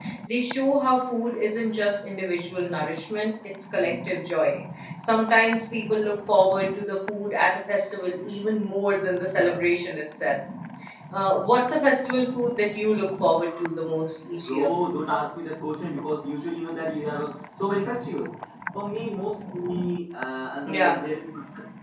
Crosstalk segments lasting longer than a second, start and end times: none

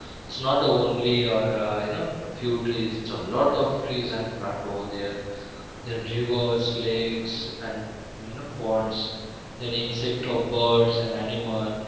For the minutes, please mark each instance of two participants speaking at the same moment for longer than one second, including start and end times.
none

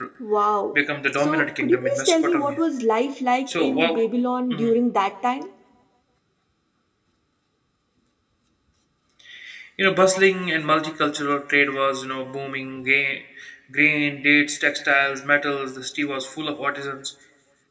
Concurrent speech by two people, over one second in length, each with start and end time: 1.2-2.6

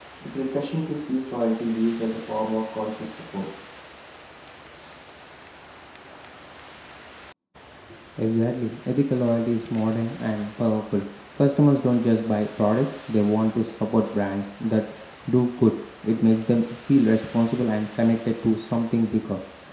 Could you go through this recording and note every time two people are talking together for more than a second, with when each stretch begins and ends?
none

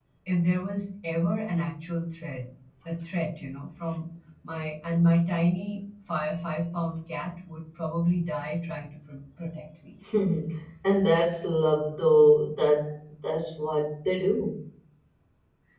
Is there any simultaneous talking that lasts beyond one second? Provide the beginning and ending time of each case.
none

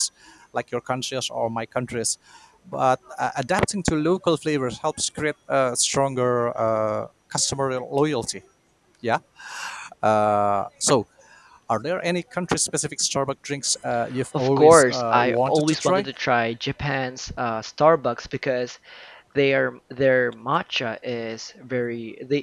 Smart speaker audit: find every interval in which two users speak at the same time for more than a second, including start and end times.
14.4-16.1

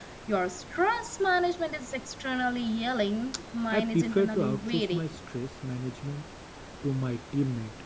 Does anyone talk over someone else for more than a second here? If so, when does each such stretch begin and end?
3.7-5.2

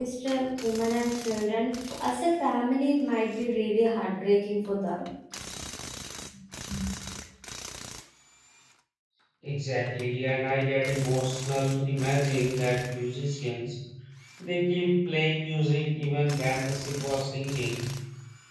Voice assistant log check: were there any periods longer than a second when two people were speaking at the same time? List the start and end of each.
none

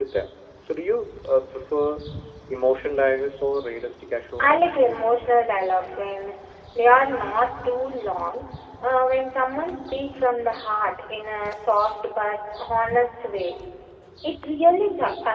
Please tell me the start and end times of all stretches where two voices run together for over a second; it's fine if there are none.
none

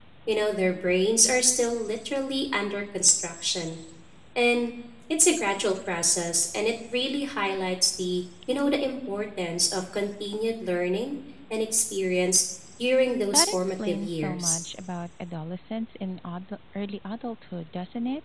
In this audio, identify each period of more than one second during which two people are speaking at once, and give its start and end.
13.3-14.6

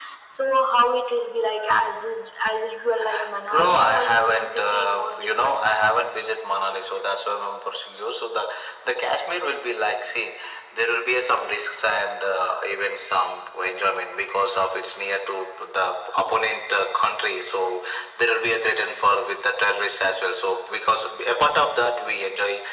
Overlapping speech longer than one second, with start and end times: 3.5-5.7

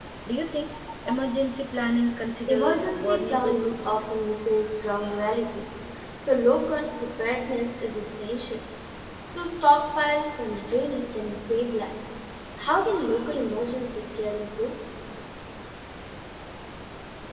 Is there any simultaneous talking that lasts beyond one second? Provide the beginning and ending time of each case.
2.5-4.1

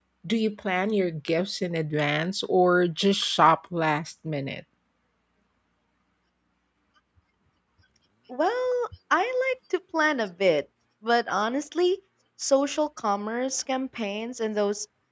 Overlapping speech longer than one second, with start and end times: none

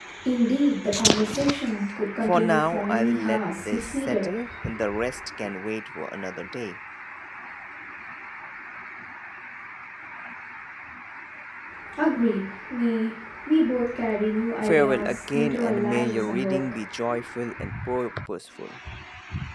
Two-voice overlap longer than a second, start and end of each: 2.2-4.2, 14.6-16.8

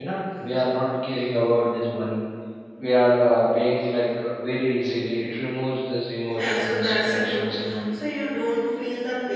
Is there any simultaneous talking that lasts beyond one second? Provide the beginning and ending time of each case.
6.3-7.8

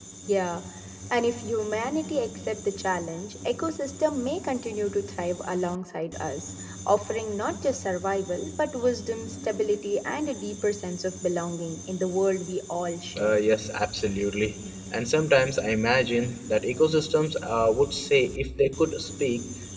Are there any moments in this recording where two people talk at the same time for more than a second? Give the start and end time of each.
none

